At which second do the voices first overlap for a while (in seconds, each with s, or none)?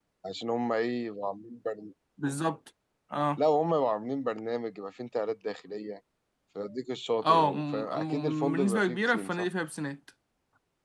7.2 s